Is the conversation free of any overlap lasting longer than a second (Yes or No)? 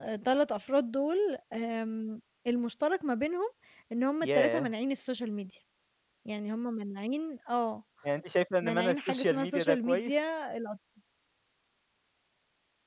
No